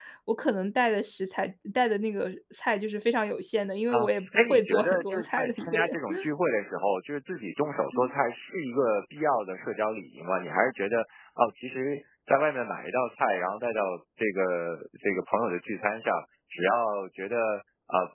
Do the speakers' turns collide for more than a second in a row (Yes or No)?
Yes